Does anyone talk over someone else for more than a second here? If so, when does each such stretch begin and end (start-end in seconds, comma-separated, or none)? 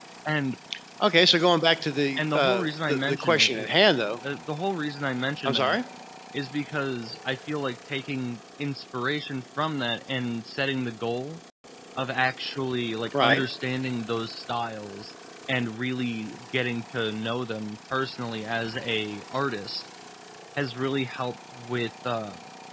2.2-3.7